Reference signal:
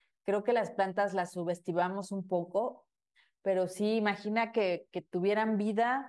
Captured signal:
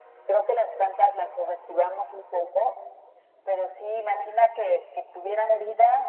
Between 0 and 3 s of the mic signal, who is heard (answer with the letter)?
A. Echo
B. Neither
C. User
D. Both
A